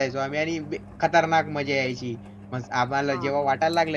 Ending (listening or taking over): listening